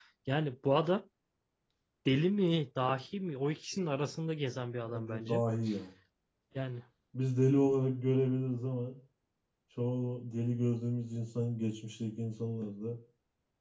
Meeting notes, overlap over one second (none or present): none